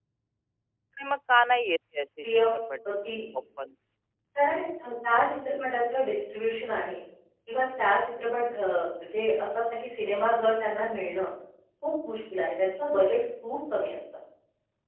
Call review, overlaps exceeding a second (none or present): none